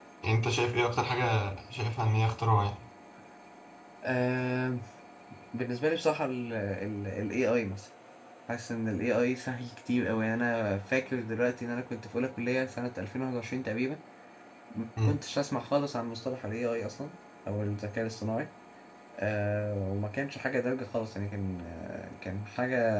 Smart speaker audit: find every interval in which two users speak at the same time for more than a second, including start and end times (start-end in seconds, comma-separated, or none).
none